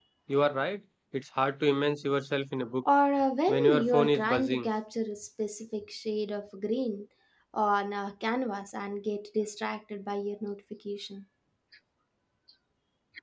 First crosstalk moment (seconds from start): 3 s

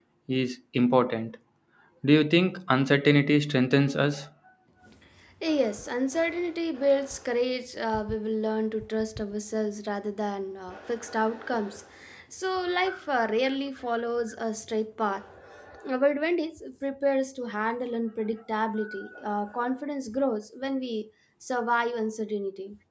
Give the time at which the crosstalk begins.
none

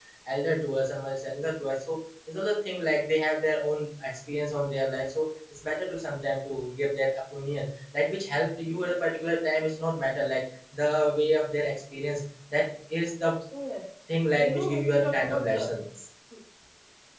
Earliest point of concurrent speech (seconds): 14 s

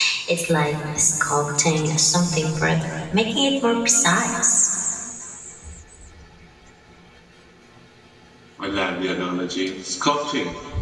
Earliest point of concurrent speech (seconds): none

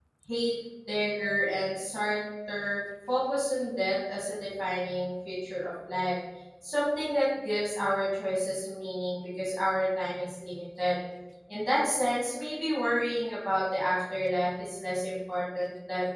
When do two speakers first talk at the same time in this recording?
none

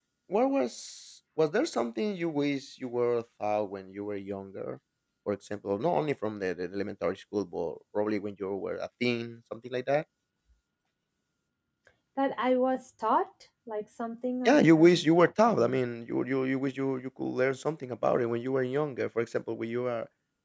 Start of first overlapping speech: 14 s

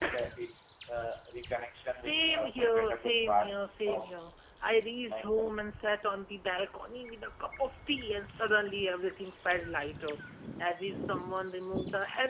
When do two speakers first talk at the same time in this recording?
2 s

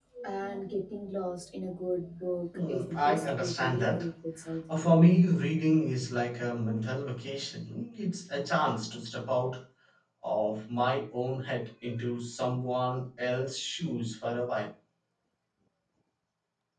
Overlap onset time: 3 s

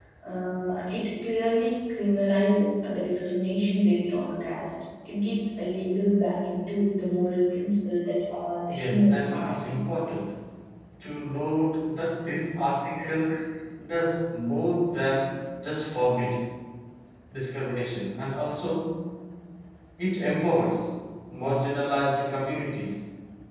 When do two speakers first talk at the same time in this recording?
9 s

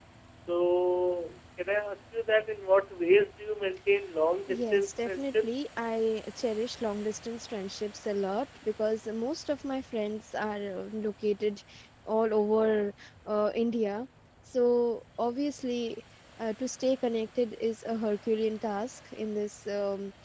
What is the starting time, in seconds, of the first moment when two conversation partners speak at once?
4 s

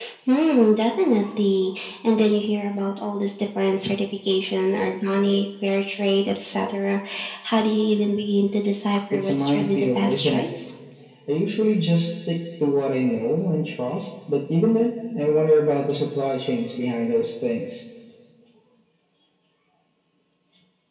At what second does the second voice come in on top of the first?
9 s

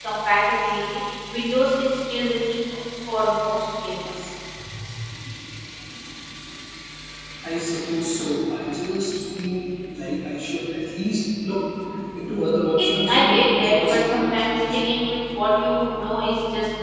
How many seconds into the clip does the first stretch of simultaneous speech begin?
13 s

